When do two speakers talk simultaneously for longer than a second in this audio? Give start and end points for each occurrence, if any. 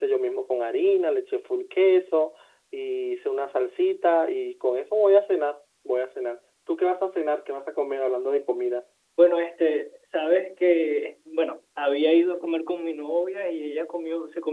none

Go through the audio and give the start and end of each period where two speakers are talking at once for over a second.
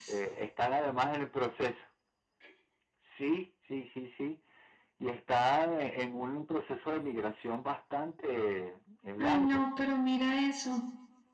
none

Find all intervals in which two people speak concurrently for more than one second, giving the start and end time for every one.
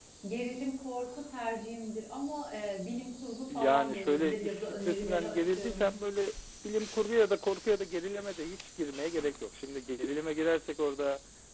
3.5-5.9

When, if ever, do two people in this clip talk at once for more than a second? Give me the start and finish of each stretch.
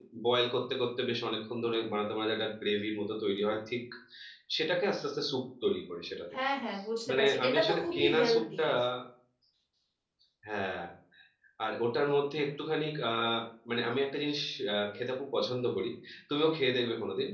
7.1-8.6

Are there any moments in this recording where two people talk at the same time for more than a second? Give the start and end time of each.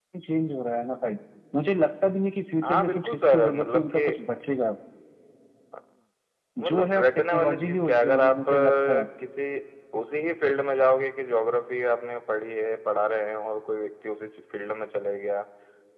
2.6-4.1, 6.7-9.0

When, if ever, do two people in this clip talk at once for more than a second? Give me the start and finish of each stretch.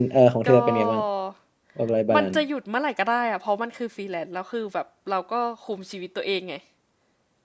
none

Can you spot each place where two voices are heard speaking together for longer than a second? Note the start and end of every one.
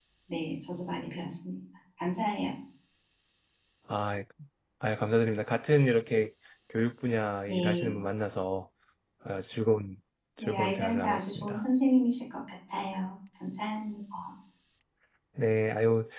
10.4-11.6

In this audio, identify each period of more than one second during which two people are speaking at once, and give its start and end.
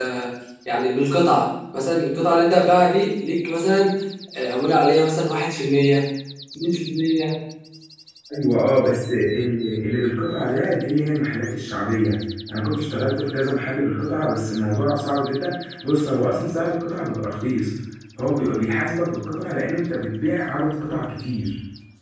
none

